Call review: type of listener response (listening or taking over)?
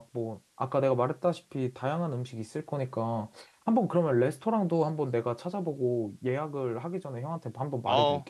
taking over